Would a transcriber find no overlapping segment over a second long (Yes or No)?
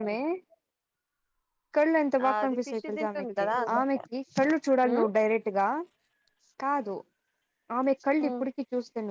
No